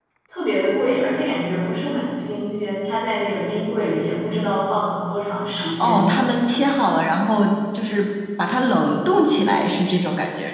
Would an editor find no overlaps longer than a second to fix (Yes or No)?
Yes